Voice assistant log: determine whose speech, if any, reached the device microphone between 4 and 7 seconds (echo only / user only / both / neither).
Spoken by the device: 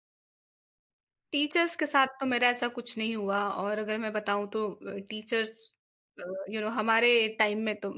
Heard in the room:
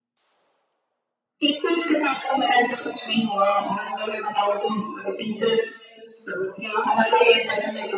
echo only